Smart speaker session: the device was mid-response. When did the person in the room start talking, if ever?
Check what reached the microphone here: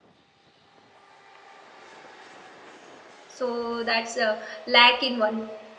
3.3 s

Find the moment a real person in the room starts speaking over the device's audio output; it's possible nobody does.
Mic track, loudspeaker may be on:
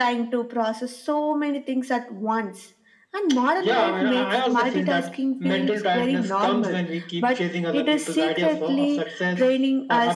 none

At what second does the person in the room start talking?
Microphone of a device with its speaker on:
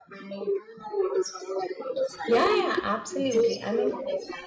2.2 s

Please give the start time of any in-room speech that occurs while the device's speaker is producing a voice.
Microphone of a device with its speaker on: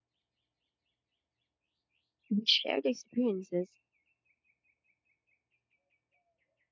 2.3 s

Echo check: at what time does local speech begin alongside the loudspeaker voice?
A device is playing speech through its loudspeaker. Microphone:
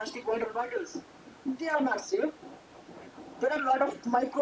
none

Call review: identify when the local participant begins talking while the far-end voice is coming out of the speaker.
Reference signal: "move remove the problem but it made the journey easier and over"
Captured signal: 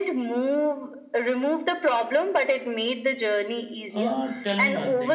3.9 s

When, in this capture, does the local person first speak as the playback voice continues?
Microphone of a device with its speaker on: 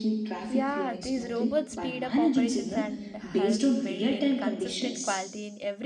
0.5 s

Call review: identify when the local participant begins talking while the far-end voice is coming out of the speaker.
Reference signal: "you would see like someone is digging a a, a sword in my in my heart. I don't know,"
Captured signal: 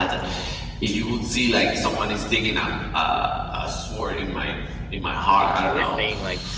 5.4 s

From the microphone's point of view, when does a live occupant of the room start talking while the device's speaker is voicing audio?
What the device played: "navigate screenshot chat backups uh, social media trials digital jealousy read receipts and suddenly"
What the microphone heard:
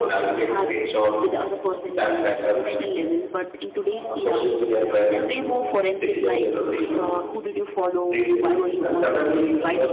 0.5 s

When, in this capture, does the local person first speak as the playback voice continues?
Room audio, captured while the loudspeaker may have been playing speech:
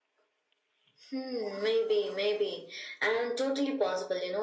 none

